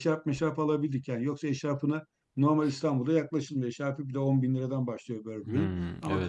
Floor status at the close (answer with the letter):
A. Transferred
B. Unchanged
B